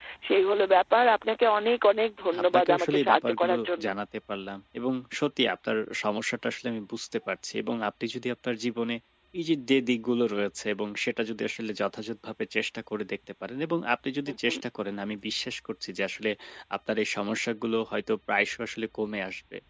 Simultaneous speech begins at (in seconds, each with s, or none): 2.4 s